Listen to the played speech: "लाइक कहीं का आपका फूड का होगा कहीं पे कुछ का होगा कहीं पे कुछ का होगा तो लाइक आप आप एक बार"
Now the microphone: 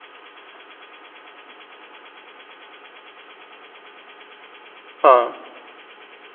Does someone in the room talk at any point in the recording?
Yes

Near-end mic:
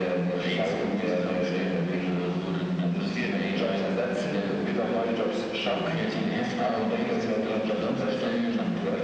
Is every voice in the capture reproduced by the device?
Yes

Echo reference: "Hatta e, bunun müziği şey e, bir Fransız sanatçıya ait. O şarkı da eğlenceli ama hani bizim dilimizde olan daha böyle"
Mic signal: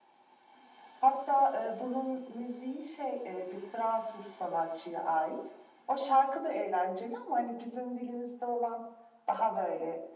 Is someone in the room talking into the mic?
No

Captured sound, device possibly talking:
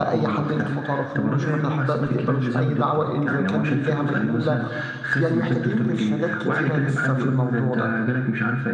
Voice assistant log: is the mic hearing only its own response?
No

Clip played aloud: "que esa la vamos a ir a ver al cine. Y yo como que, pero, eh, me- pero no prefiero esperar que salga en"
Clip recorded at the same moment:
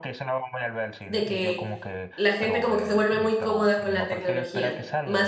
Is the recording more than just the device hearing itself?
Yes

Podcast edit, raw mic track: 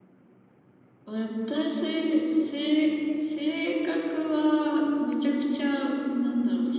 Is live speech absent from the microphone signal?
Yes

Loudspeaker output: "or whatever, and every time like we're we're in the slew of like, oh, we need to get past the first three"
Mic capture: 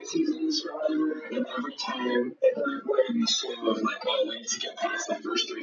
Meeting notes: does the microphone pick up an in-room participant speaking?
No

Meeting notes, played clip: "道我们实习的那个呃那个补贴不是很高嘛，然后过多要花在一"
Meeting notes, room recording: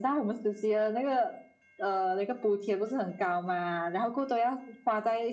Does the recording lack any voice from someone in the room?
Yes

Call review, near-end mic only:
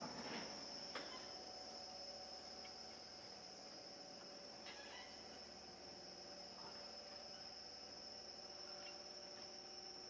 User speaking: No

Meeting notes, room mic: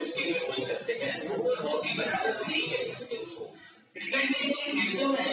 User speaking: No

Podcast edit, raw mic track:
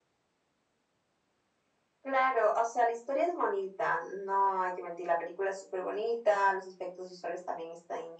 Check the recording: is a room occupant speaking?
No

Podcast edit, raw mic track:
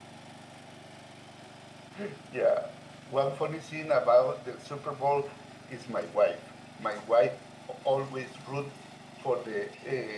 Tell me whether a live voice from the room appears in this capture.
Yes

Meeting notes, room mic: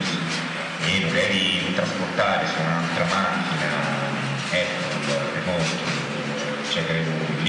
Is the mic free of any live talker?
Yes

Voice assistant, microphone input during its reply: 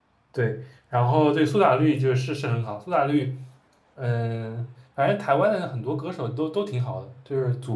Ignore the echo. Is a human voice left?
Yes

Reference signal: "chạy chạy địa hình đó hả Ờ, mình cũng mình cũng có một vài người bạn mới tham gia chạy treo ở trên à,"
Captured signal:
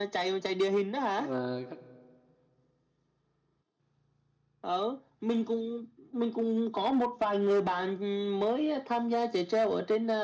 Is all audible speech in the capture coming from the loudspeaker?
No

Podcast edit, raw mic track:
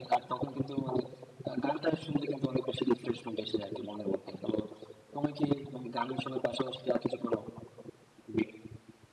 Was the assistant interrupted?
No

